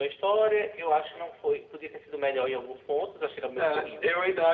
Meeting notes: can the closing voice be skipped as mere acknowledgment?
No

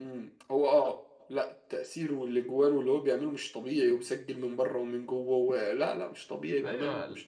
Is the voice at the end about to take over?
Yes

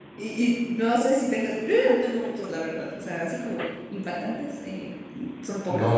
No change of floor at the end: No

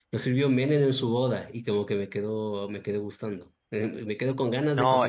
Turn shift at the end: Yes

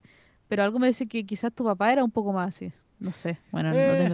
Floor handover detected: Yes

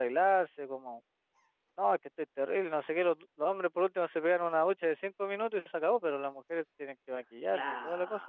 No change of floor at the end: No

